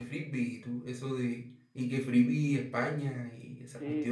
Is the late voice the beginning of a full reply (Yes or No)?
Yes